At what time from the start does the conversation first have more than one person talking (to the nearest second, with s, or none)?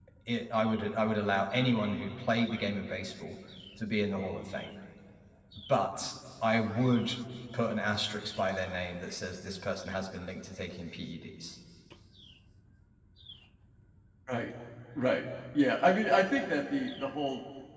none